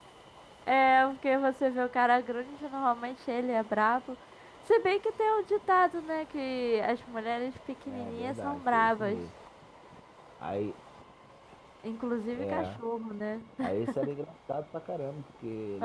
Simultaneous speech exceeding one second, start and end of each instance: 7.9-9.2

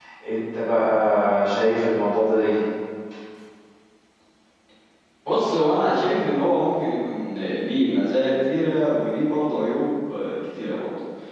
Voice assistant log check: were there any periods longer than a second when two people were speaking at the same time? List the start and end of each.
none

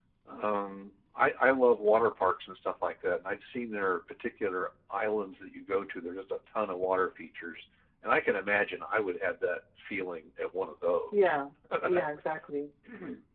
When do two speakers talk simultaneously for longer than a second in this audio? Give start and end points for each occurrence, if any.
none

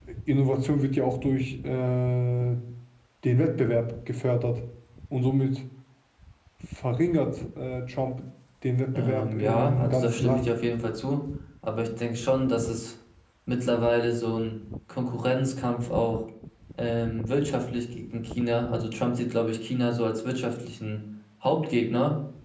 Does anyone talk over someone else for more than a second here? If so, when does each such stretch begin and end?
8.9-10.5

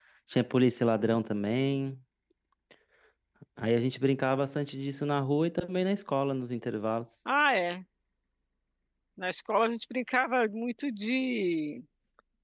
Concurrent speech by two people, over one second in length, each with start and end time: none

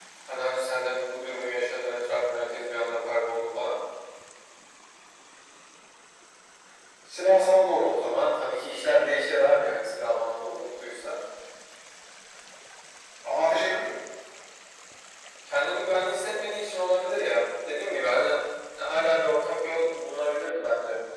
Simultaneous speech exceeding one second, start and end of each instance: none

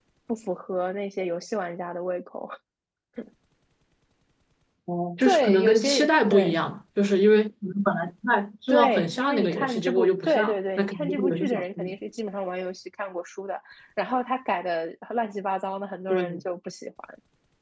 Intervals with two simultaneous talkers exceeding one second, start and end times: 5.2-6.6, 8.7-11.9

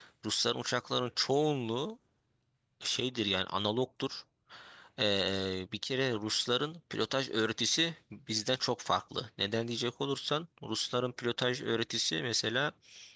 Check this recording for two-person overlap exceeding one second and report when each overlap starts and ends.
none

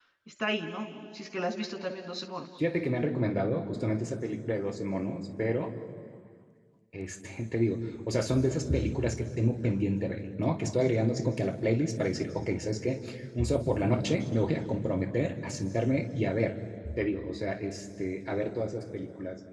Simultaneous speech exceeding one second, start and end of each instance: none

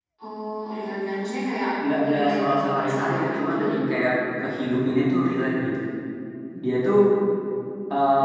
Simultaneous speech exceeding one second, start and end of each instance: 2.0-3.8

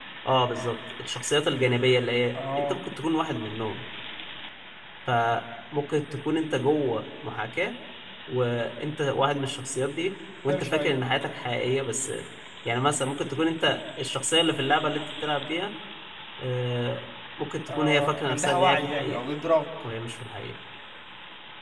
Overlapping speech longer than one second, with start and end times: 17.7-19.2

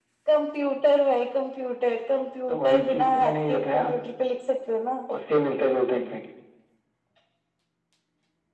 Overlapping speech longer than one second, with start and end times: 2.5-3.9

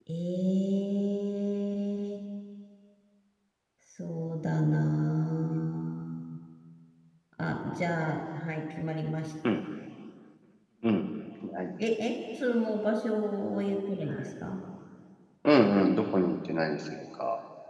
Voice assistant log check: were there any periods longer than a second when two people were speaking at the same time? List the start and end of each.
none

